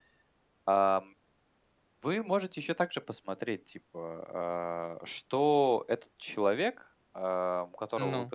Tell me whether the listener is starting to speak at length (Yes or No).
No